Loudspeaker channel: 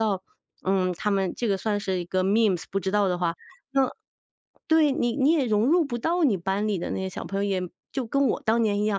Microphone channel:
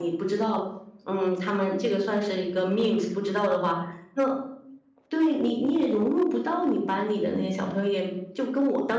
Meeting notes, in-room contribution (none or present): none